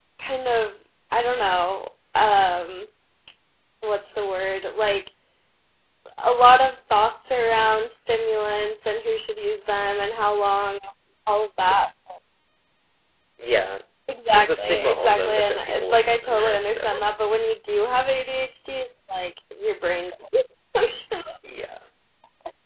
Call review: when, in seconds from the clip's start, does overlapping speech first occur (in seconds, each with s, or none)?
14.3 s